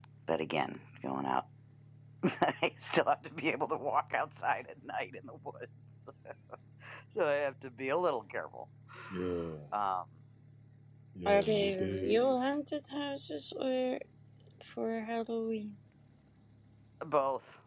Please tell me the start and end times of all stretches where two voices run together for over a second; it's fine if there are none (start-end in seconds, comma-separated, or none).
11.2-12.5